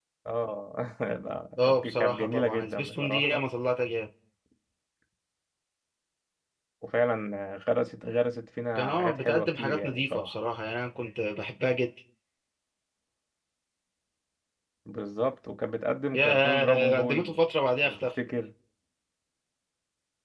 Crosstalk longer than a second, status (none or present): present